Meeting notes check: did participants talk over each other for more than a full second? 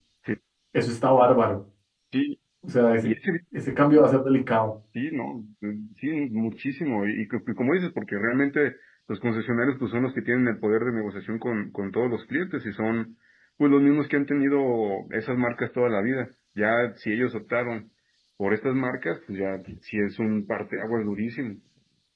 No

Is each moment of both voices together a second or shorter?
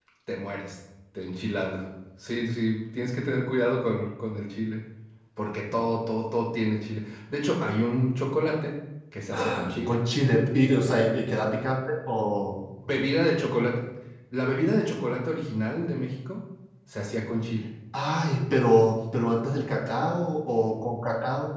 Yes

